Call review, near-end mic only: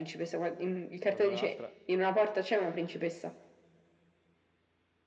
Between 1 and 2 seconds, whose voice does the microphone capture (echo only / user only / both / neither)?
both